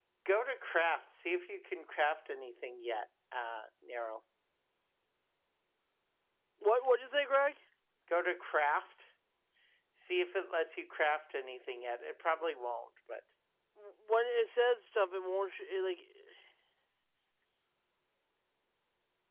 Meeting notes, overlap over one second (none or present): none